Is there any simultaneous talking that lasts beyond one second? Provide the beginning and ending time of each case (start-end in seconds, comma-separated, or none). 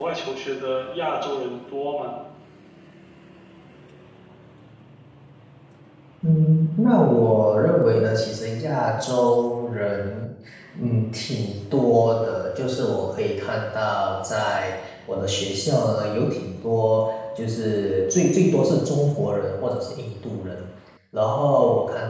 none